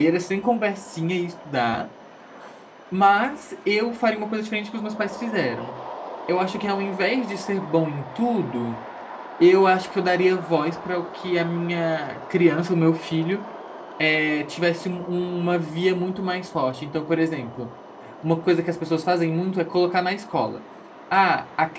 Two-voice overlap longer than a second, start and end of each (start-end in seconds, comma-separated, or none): none